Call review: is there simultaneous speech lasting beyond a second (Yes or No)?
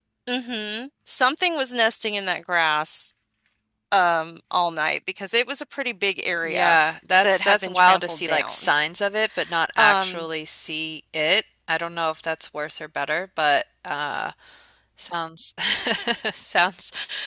Yes